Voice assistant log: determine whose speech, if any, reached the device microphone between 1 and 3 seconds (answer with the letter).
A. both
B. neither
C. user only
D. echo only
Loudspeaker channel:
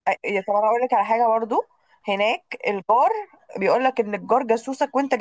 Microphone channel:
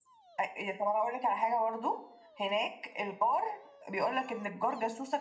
D